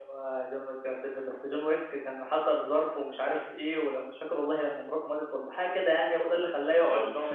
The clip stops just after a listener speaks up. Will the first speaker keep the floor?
Yes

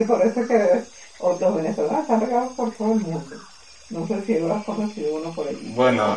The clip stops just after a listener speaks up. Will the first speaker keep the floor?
No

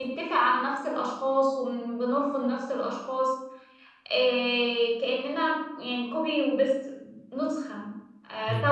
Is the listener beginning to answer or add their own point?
No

